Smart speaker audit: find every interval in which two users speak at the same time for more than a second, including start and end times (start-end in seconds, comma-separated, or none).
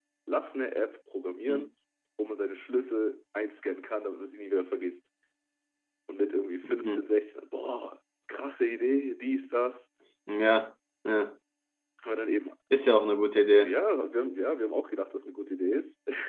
none